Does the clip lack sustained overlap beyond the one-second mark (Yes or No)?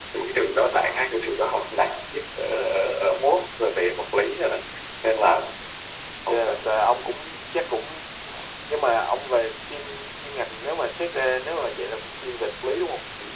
Yes